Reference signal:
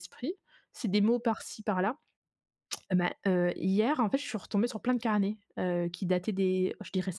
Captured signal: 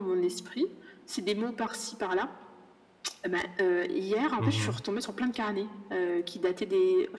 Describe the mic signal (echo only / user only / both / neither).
both